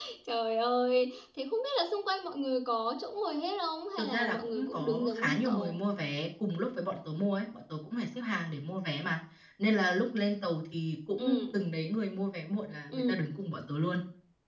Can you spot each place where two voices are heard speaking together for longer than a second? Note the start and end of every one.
4.0-5.7

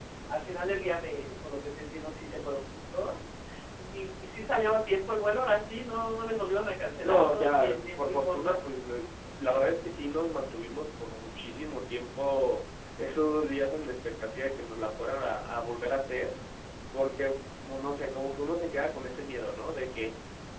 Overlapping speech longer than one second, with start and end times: 7.0-8.6

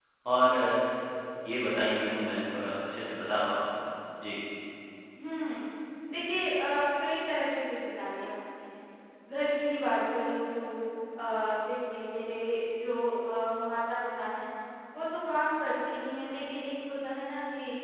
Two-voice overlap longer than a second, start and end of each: none

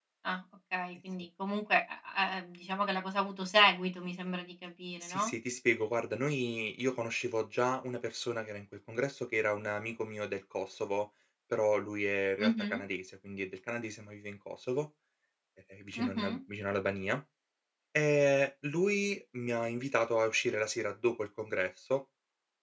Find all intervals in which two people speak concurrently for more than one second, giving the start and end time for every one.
none

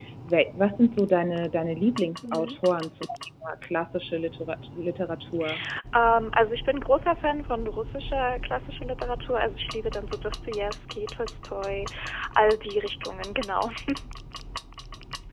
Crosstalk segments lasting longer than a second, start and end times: none

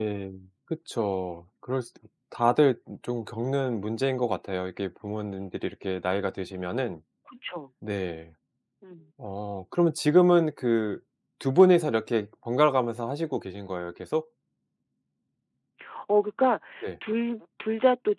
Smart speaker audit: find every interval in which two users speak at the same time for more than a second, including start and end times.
none

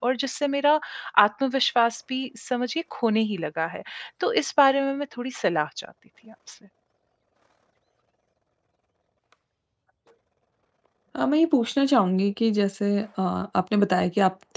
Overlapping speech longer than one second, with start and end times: none

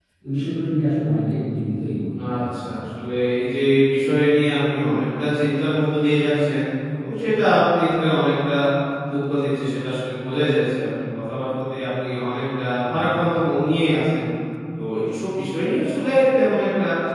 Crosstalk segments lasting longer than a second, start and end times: none

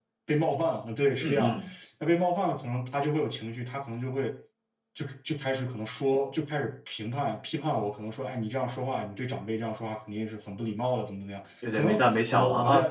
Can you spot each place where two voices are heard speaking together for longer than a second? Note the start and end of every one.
none

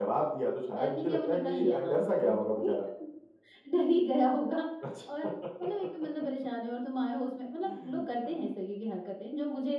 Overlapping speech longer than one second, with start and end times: 0.7-2.7

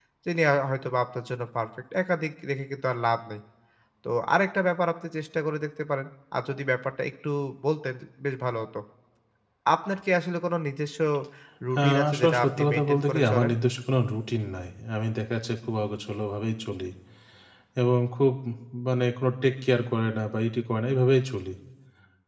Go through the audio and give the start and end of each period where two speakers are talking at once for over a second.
11.8-13.5

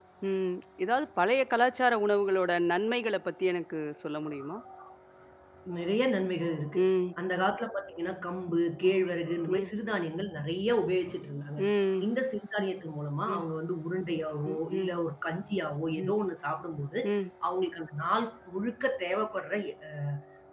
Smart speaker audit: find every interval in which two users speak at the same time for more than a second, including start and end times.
none

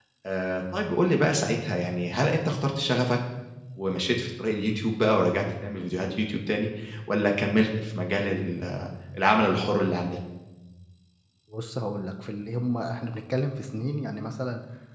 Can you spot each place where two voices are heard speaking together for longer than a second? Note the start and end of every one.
none

